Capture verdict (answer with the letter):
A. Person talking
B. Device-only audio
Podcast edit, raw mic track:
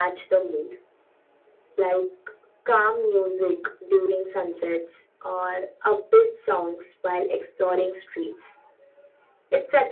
B